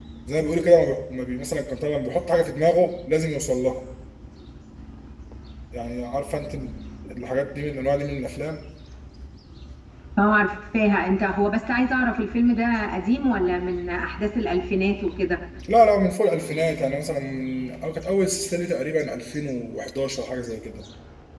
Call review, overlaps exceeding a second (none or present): none